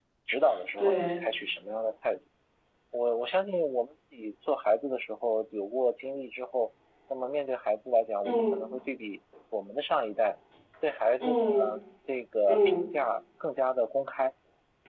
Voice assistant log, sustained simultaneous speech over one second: none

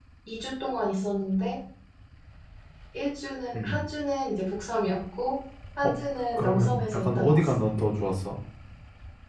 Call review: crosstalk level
present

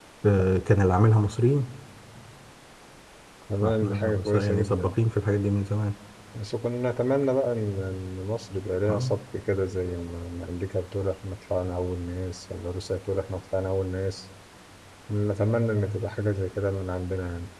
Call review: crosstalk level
present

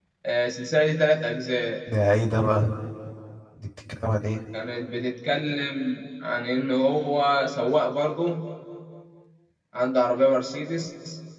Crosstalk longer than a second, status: none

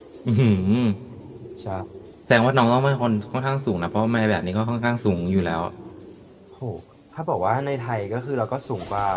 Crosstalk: none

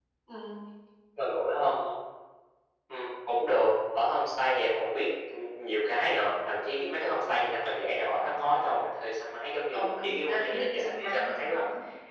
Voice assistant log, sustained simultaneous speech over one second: present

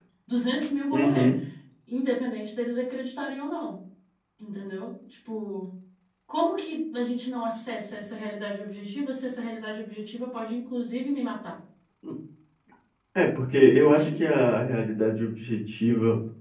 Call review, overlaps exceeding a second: none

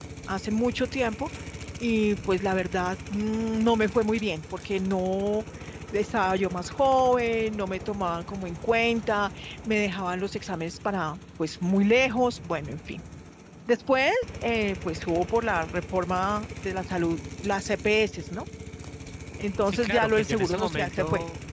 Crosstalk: present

